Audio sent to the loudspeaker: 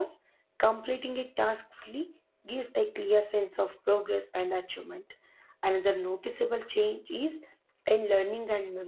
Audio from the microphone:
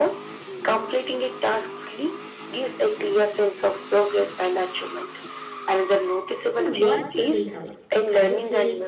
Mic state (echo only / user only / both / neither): both